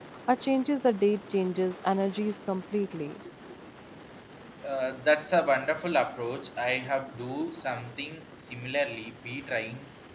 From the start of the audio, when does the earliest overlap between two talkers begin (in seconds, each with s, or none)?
none